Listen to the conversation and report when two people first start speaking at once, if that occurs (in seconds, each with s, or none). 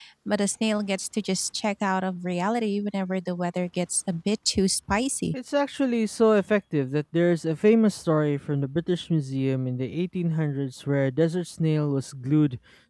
none